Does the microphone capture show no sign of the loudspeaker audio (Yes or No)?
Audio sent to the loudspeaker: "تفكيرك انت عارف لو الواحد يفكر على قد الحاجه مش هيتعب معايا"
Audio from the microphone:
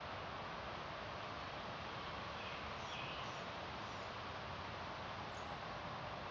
Yes